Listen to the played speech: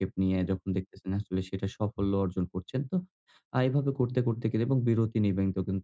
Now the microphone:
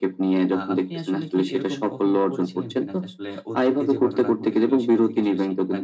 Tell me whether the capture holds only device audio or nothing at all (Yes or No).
No